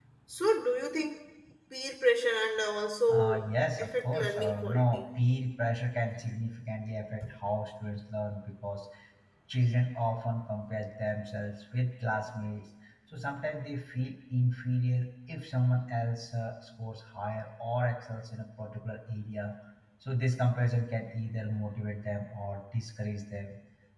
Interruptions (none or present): present